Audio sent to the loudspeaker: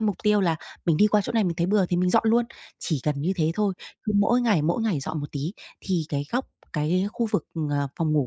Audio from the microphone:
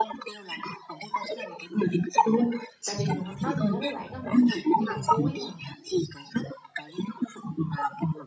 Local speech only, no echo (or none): Tại vì mình h nói mình nói với bạn á mình cũng là sinh viên năm cuối mà,